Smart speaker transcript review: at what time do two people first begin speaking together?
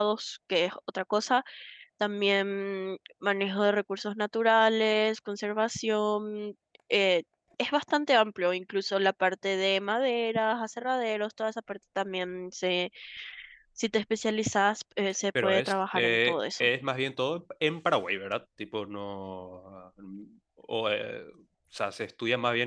15.3 s

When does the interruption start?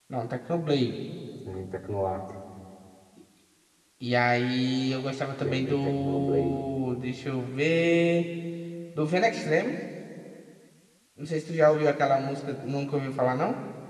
5.4 s

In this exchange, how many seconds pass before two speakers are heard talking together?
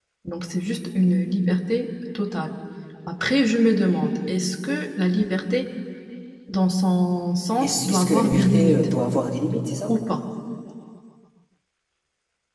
7.6 s

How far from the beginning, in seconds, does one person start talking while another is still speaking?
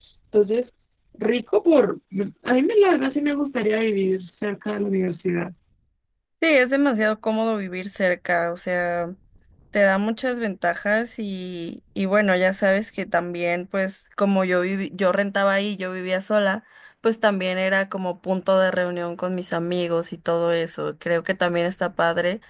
none

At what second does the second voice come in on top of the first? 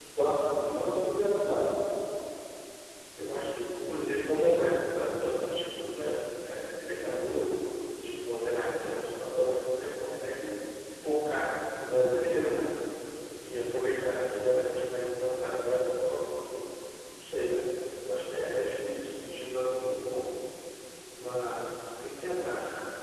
none

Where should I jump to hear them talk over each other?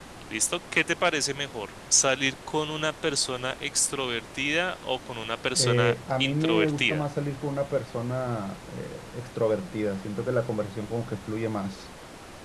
5.5 s

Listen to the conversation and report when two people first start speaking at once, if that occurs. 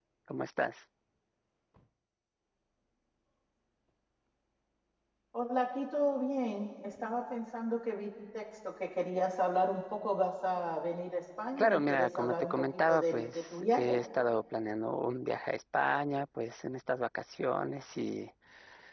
11.6 s

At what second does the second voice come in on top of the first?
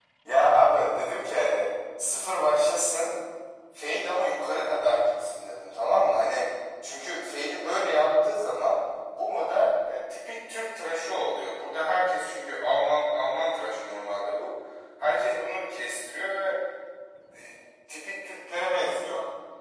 none

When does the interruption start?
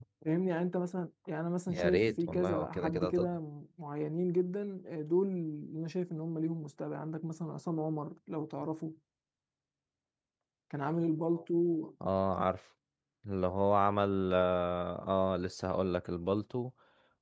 1.7 s

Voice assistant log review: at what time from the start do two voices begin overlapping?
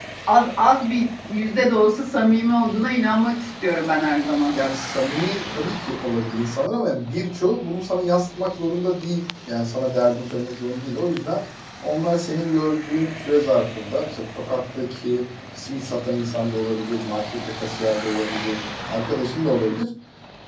none

